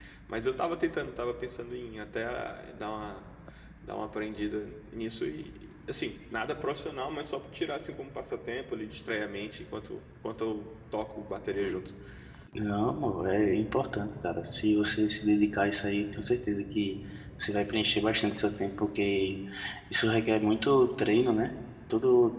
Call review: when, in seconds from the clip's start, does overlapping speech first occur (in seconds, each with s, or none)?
none